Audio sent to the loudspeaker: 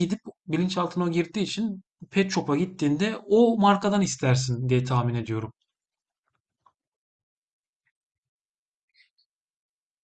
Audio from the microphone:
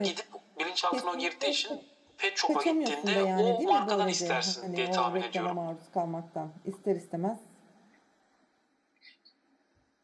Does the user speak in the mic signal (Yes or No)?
Yes